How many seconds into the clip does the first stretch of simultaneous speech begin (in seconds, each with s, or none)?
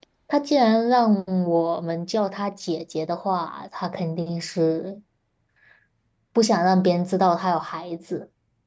none